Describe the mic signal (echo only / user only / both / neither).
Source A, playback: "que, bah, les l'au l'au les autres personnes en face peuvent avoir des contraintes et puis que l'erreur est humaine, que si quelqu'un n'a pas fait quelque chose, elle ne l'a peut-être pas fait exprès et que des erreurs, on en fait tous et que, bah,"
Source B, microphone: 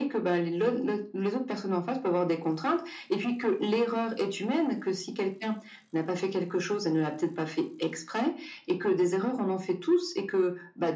echo only